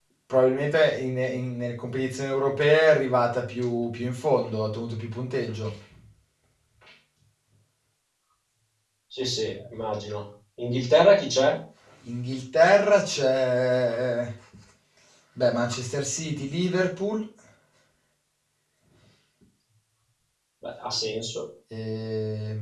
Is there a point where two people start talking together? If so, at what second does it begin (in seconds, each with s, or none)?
none